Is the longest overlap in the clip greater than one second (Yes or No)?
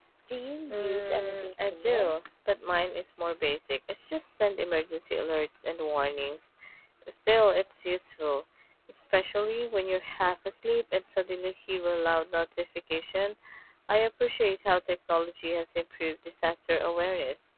Yes